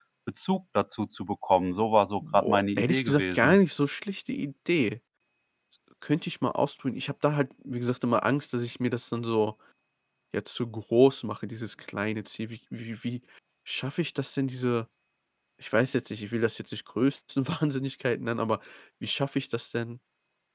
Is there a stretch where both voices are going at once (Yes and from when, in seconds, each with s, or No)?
Yes, from 2.2 s